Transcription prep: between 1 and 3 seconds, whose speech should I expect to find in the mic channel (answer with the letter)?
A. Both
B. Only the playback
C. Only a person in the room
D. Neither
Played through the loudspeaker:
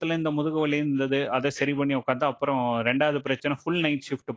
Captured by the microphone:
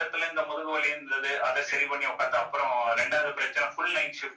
B